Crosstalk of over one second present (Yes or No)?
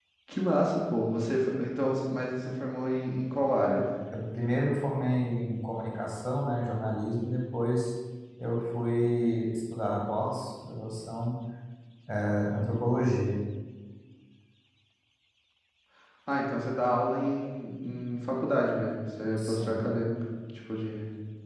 No